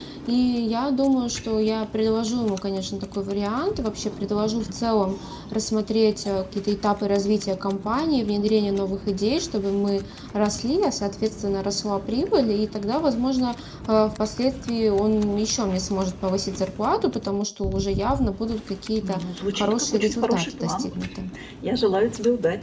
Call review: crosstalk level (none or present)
present